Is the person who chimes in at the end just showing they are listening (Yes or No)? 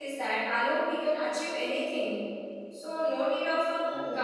Yes